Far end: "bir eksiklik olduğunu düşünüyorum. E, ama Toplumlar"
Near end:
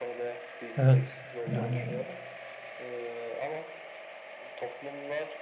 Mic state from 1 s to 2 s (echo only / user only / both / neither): both